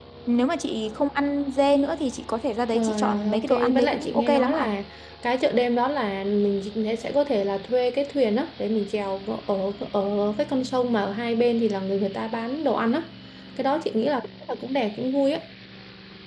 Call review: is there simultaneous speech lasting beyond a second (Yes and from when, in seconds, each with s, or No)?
Yes, from 2.7 s